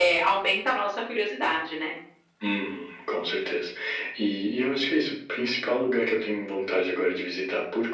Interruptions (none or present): none